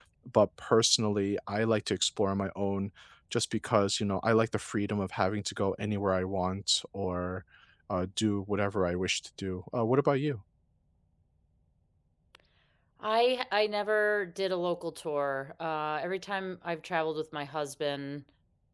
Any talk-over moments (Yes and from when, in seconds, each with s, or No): No